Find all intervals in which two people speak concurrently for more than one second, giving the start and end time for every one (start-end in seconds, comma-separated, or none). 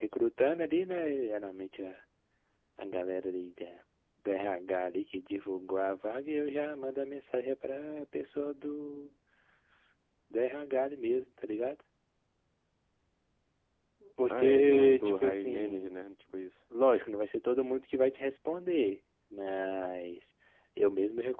14.3-15.9